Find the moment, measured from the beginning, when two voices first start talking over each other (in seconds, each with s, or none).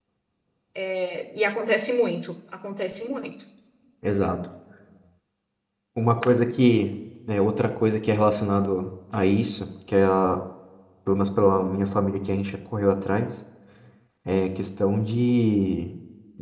none